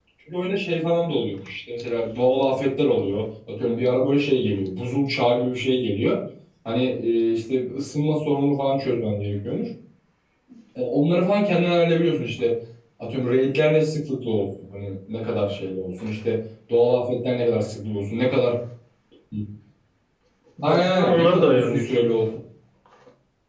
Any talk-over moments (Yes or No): Yes